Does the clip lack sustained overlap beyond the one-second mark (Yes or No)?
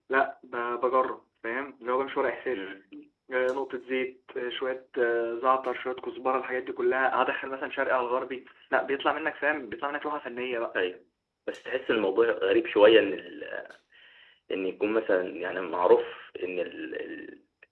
Yes